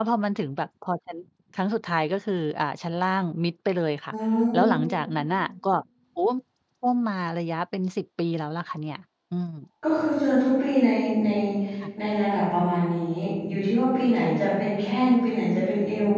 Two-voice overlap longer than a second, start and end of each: none

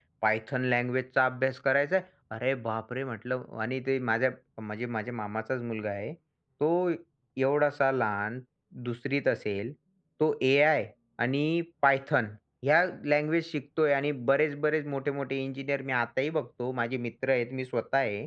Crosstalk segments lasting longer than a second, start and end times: none

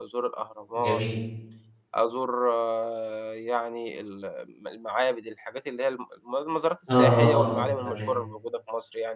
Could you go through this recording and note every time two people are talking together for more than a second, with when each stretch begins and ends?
6.9-8.1

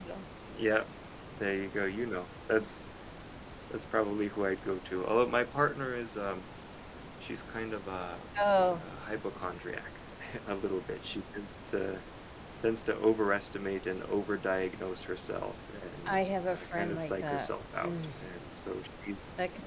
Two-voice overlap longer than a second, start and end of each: 16.1-17.5

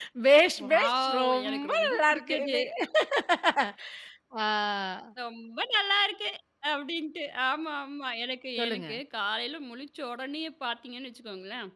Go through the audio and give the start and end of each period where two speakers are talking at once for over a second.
0.6-2.5

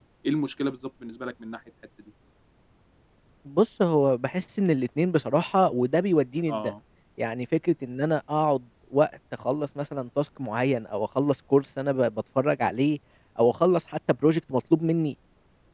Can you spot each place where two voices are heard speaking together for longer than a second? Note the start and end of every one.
none

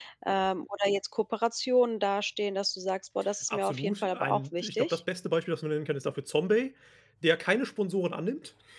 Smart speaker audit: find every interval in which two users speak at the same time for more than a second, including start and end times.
3.5-5.0

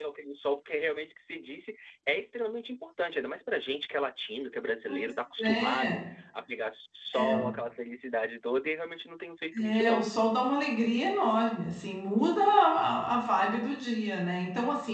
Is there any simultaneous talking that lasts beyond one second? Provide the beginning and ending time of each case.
none

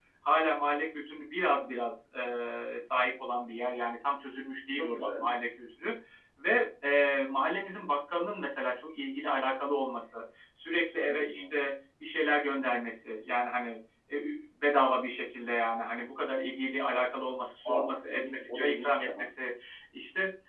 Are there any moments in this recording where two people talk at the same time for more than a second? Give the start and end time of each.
17.6-19.3

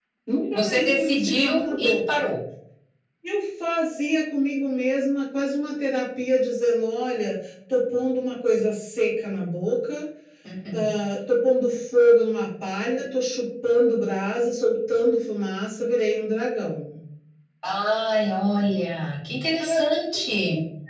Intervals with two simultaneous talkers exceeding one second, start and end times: 0.5-2.2

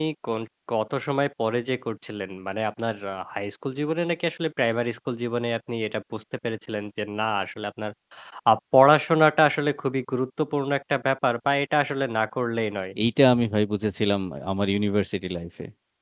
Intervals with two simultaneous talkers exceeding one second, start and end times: none

